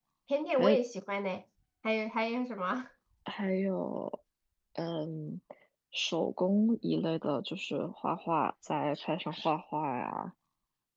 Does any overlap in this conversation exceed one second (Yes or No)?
No